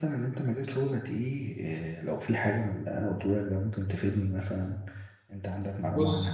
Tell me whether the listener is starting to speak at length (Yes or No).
Yes